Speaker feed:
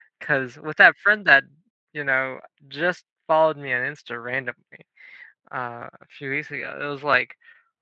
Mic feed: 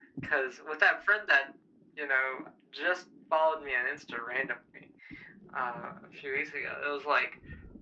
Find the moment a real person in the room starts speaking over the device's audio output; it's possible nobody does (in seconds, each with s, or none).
none